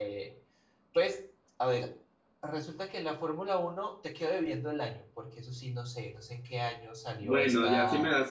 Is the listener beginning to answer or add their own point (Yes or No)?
Yes